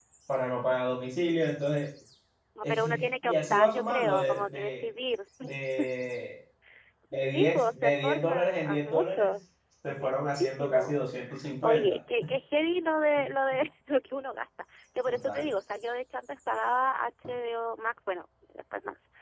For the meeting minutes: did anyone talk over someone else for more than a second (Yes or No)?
Yes